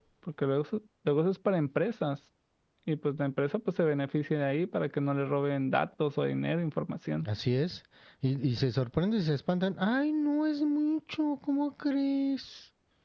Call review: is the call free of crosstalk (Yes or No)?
Yes